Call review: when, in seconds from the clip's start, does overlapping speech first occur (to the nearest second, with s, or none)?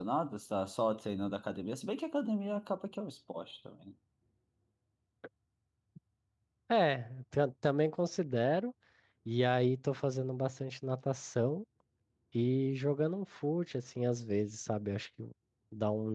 none